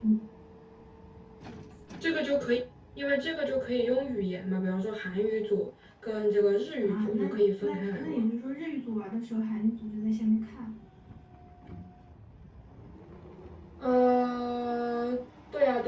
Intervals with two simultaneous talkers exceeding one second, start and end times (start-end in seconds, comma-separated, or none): 6.8-8.2